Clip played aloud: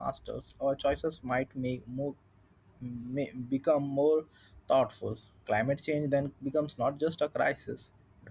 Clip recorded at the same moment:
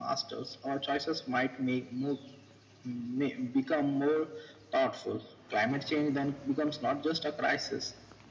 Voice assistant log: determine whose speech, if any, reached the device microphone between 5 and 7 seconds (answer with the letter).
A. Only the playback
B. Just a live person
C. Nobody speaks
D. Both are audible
A